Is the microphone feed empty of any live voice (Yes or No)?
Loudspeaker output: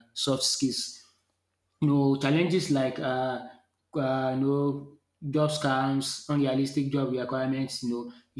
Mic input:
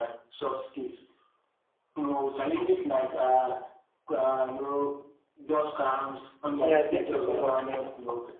No